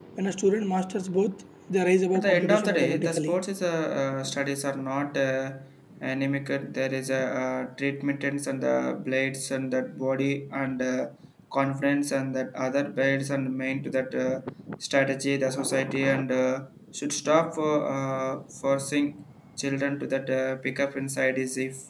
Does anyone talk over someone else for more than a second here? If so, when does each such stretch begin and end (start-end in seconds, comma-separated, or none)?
2.1-3.3